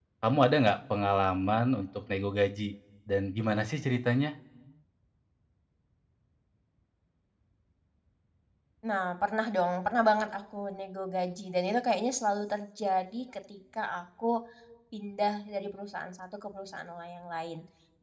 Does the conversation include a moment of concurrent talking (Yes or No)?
No